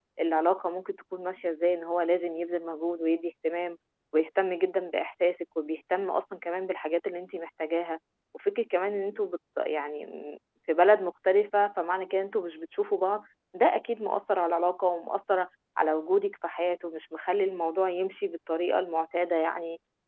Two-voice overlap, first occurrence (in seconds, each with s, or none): none